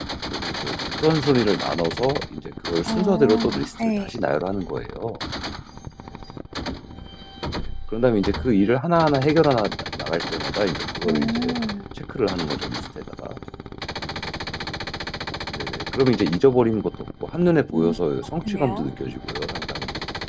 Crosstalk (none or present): present